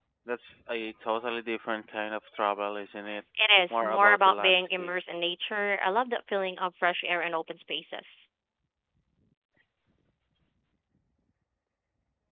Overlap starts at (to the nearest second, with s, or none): 4 s